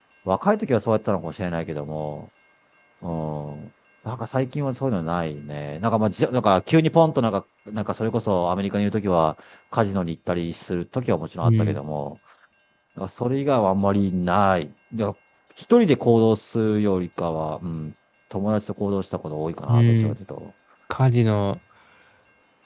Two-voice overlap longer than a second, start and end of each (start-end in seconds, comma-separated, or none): none